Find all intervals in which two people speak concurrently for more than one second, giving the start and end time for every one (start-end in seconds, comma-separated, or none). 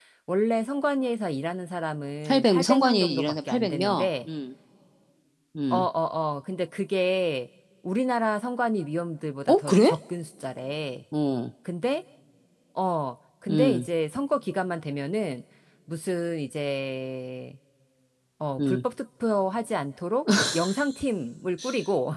2.2-4.1